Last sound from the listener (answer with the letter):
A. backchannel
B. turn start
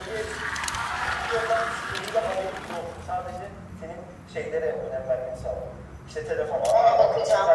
A